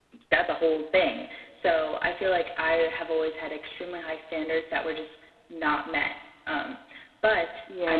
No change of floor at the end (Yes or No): No